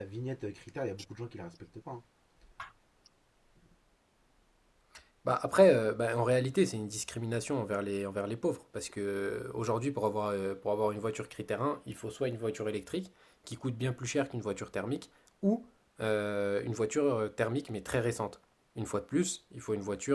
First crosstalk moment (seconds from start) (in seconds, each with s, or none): none